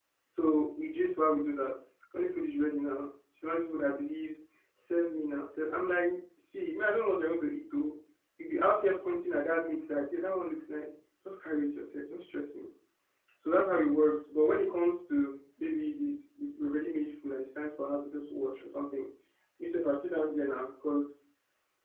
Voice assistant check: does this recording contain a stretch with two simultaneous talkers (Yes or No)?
No